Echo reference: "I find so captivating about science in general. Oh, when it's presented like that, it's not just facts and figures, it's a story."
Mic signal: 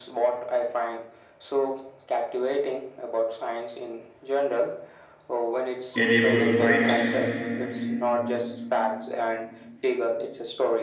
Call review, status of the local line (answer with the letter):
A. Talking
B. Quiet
A